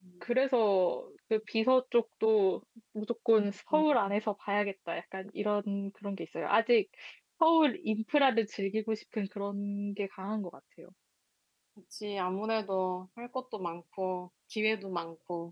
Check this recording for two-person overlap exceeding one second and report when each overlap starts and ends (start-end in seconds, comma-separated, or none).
none